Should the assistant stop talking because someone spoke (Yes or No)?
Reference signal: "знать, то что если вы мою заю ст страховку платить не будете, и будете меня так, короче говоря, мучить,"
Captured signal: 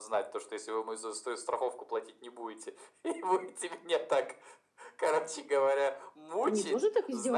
Yes